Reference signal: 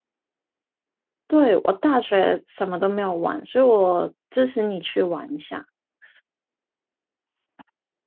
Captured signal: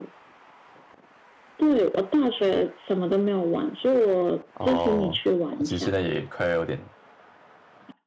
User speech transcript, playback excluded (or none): 哦，我其实现在也快要有点